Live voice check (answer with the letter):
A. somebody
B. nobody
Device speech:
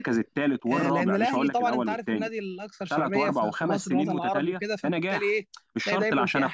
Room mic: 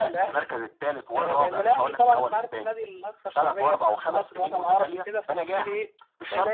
B